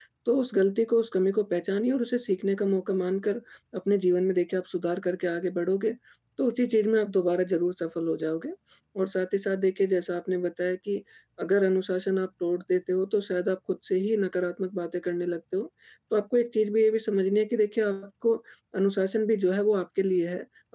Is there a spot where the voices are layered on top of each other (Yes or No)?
No